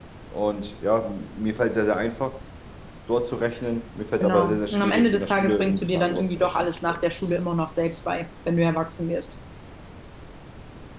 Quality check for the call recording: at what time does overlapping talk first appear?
4.2 s

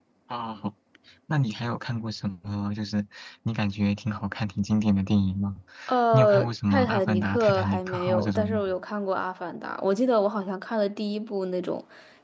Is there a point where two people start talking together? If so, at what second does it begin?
6.1 s

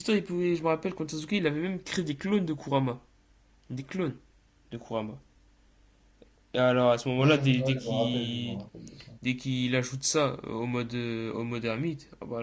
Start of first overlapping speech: 7.2 s

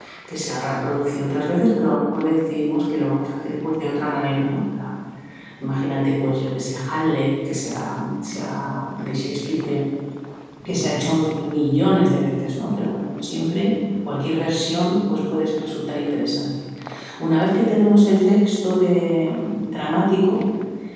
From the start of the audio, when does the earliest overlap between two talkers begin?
none

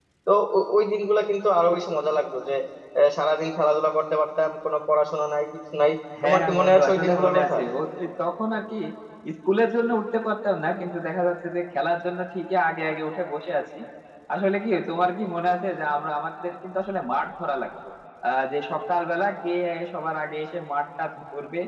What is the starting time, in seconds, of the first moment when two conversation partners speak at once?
6.2 s

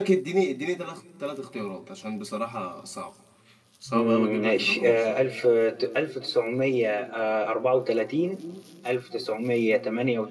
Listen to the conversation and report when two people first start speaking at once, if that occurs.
3.9 s

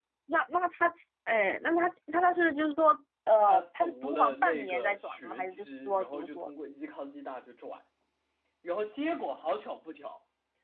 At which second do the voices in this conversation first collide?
3.4 s

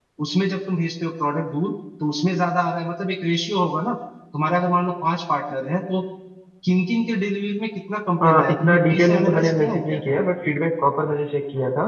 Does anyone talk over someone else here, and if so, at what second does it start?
8.2 s

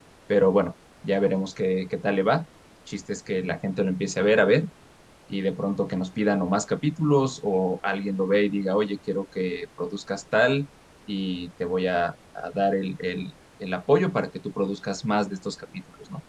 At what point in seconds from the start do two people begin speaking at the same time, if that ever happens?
none

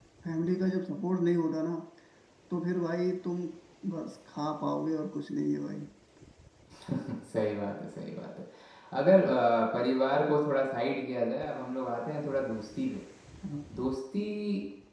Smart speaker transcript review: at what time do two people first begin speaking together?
none

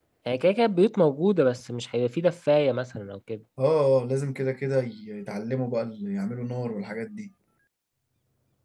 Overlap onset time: none

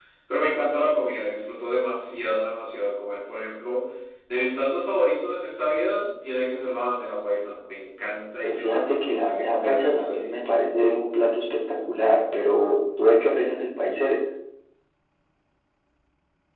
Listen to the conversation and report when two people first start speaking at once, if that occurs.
8.4 s

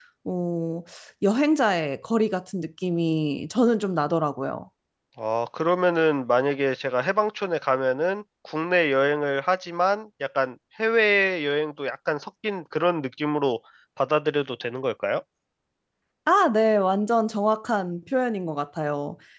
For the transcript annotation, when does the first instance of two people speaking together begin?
none

